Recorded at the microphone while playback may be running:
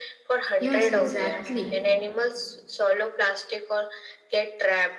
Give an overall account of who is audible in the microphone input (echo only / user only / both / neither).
both